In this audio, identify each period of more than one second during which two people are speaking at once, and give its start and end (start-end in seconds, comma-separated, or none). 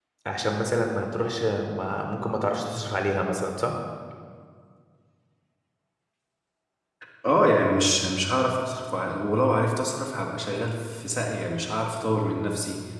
none